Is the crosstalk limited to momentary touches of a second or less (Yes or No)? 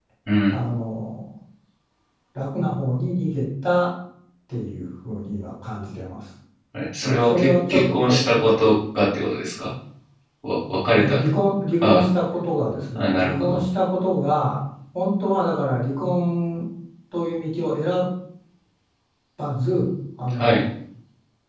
No